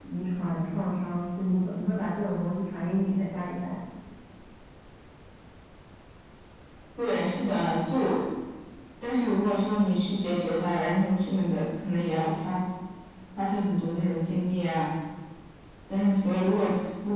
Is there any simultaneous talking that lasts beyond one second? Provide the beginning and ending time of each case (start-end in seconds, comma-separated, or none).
none